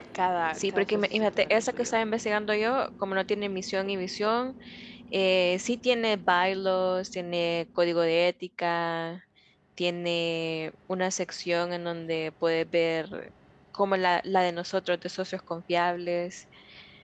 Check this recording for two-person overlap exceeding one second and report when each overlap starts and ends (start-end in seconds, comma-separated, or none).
0.6-1.9